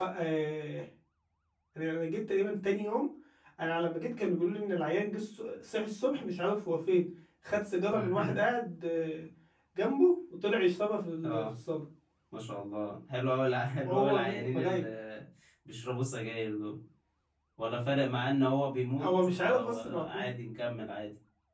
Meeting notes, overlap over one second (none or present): present